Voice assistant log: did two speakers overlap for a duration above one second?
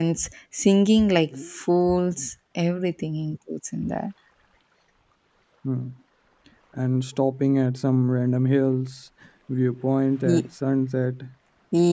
No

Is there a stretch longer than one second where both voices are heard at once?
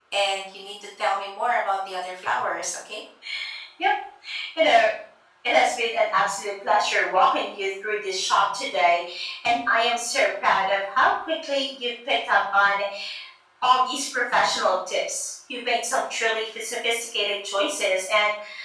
No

